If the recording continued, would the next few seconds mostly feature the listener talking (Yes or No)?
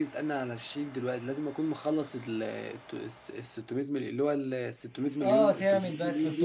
Yes